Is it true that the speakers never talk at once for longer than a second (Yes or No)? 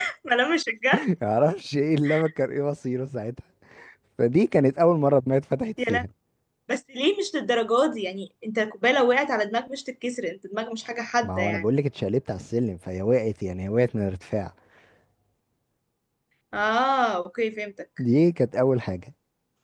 Yes